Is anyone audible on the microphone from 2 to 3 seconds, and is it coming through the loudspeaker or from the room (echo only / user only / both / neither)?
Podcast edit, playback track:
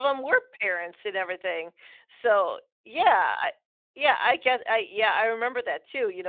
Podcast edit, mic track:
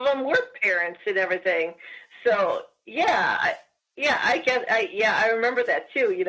echo only